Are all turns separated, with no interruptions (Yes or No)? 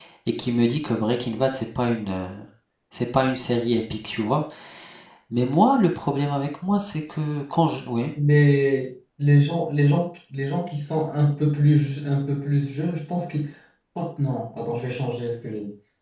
Yes